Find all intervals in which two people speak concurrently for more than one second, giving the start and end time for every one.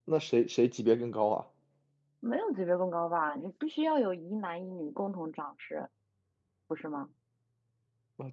none

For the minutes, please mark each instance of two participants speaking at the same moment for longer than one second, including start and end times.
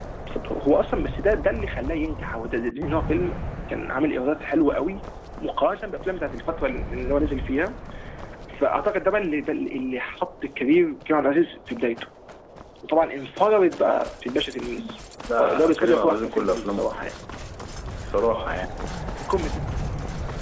15.4-17.0

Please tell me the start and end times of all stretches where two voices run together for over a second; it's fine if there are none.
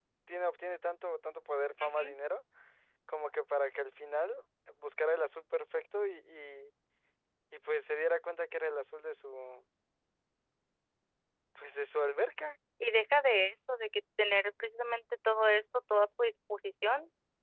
none

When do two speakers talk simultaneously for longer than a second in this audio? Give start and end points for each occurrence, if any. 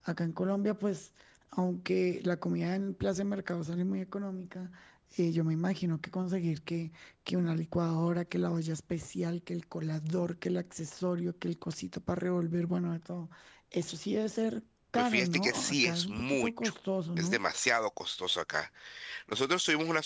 15.0-16.7

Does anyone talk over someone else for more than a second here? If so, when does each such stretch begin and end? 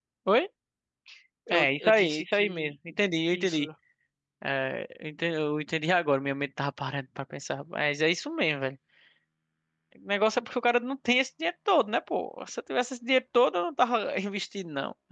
1.5-2.7

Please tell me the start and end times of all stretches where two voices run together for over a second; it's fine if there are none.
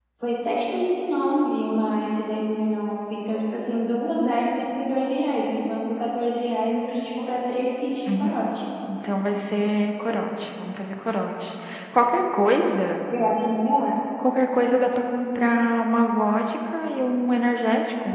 none

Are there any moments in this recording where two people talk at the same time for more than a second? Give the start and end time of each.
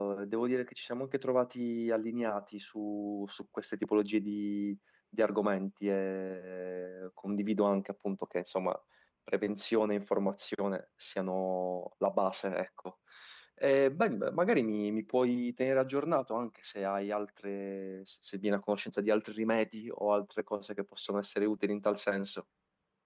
none

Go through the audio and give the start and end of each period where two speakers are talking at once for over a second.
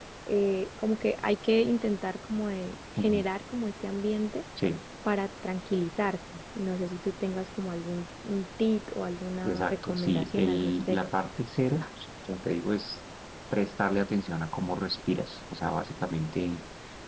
9.4-11.0

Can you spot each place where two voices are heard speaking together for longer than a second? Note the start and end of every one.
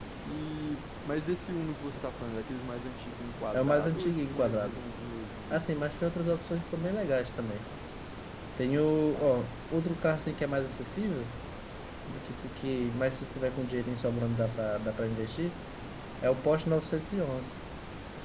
3.5-4.8

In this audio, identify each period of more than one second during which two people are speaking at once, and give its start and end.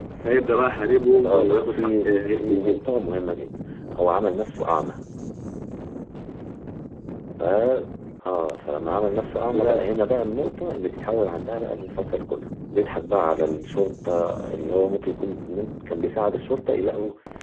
1.2-2.8

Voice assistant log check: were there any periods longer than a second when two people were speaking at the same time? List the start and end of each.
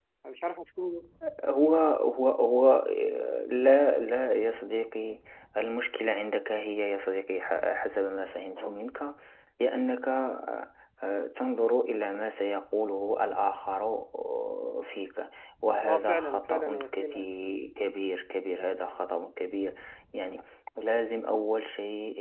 15.8-17.2

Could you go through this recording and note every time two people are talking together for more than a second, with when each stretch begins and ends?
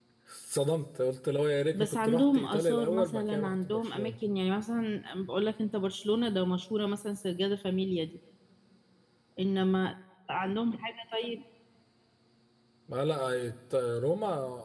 1.7-4.1

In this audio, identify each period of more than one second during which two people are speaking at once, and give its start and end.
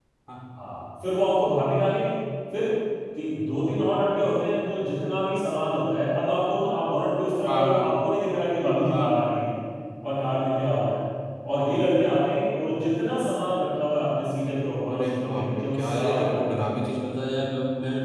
14.9-16.8

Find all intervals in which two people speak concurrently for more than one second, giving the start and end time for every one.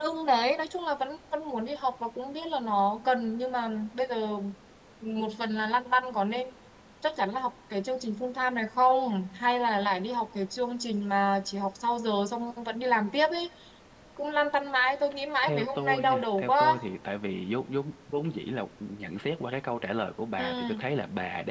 15.4-16.7

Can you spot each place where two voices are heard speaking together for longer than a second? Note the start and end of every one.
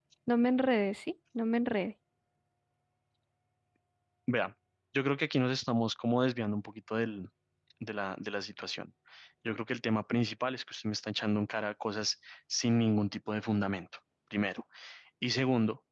none

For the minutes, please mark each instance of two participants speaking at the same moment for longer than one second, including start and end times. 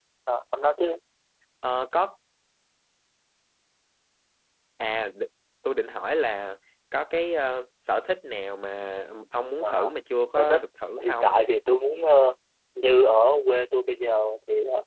none

